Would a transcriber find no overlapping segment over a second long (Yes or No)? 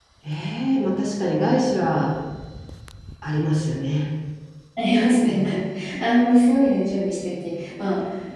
Yes